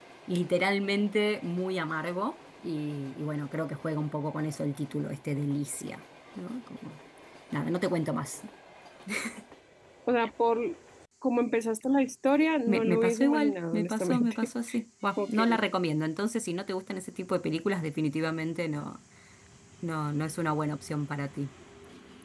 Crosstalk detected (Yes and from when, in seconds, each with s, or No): Yes, from 12.7 s